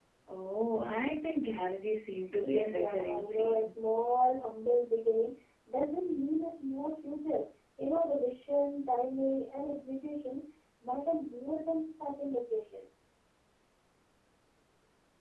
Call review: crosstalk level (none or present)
present